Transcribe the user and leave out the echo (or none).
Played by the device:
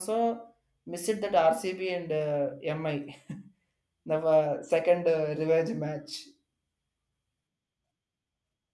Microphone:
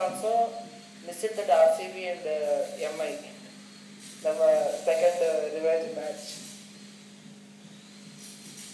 none